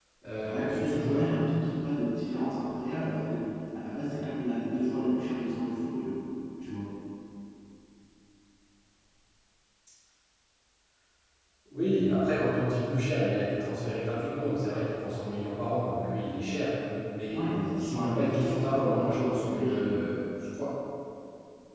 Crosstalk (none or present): present